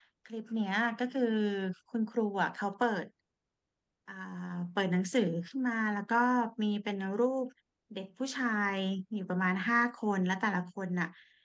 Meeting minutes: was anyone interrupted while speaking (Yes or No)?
No